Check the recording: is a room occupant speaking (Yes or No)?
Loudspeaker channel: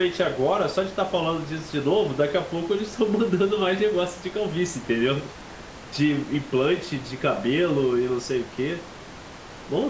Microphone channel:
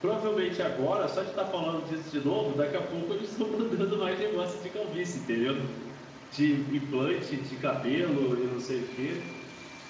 No